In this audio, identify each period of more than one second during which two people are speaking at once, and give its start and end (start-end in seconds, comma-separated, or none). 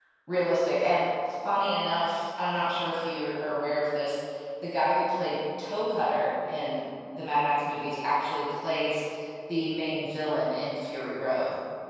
none